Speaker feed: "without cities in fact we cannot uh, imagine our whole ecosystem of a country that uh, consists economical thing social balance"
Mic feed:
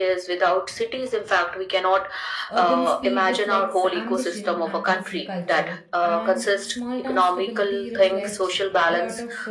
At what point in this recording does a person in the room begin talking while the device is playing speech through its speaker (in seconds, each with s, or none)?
2.5 s